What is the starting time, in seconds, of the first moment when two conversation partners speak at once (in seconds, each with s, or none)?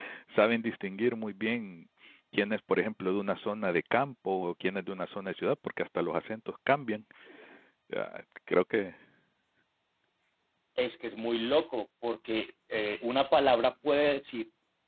none